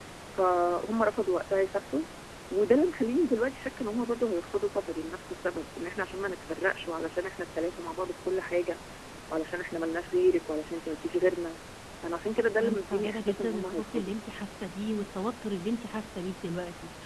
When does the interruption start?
12.6 s

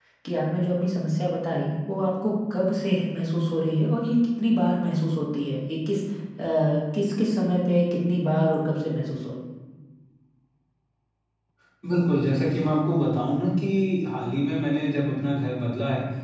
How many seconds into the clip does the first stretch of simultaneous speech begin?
none

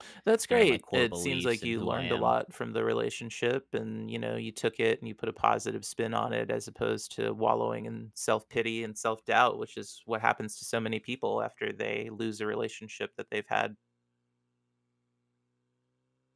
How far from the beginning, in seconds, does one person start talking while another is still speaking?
0.5 s

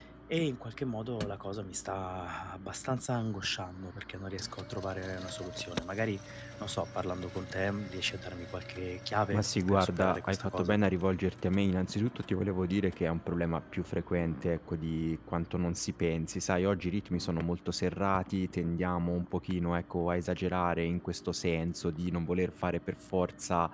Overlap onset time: 9.3 s

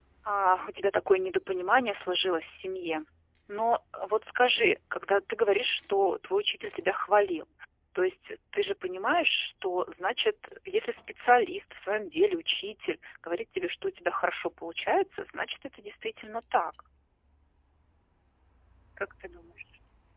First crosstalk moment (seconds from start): none

